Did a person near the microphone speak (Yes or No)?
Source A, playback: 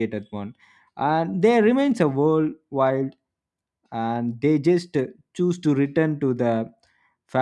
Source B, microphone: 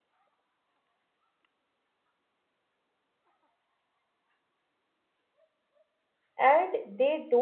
Yes